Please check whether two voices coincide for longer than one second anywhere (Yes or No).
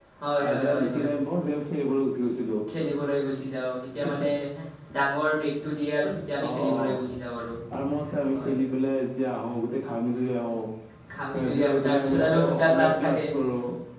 Yes